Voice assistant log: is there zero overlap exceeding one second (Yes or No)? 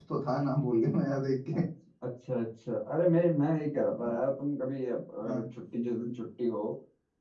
Yes